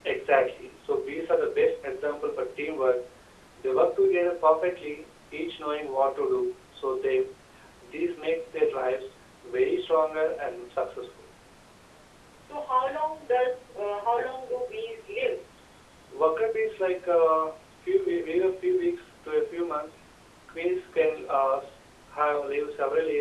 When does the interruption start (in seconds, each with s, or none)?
none